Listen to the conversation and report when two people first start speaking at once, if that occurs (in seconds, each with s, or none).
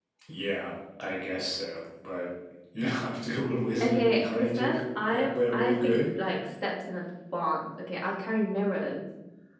3.8 s